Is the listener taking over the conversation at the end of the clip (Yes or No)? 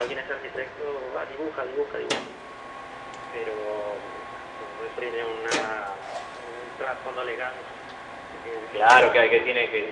Yes